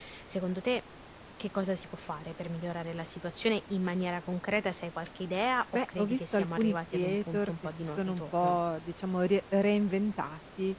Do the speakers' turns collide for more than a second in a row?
Yes, from 5.7 s

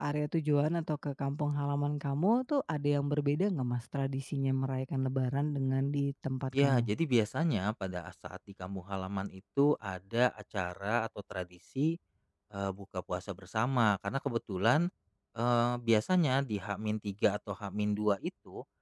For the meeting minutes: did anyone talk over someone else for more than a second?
No

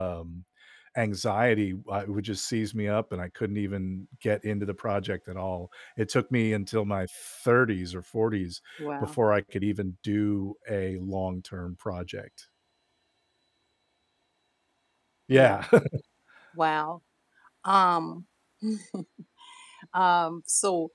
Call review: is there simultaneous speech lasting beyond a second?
No

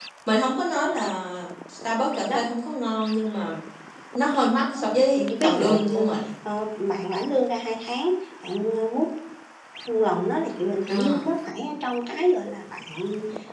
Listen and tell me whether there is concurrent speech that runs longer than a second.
Yes, from 4.7 s

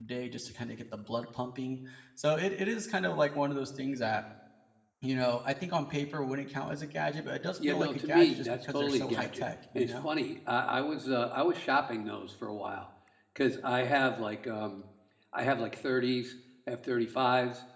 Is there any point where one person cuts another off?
Yes, from 7.6 s

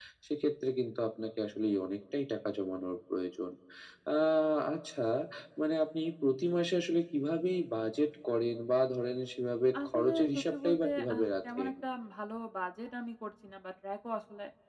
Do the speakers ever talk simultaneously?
Yes, from 9.7 s

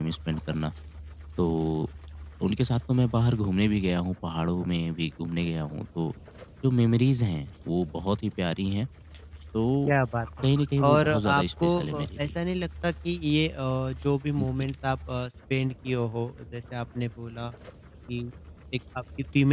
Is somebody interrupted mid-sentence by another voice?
Yes, from 10.8 s

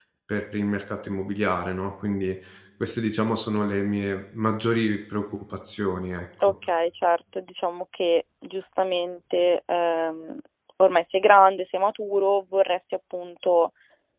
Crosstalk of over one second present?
No

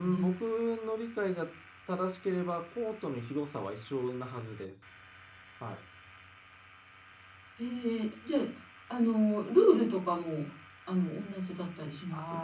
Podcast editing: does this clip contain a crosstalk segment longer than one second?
No

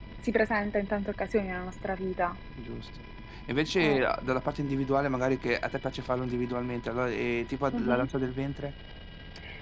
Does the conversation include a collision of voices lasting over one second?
No

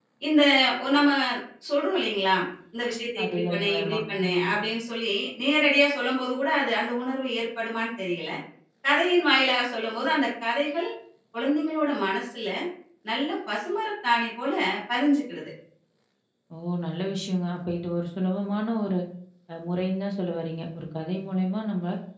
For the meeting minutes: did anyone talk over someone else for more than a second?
Yes, from 3.2 s

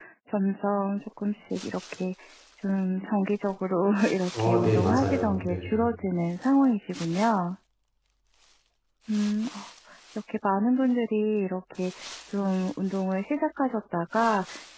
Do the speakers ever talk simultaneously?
Yes, from 4.3 s

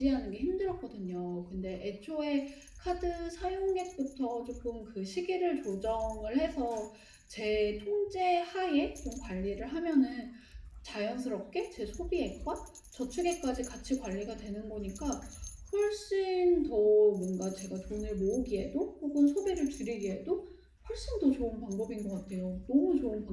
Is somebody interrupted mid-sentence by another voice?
No

